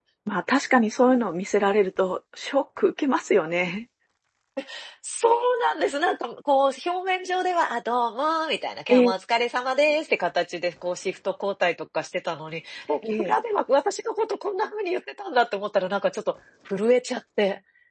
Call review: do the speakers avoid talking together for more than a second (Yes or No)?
Yes